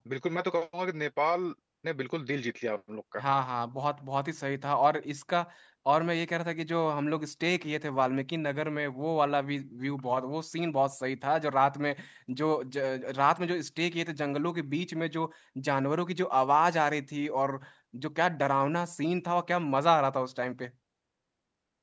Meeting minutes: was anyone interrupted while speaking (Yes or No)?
No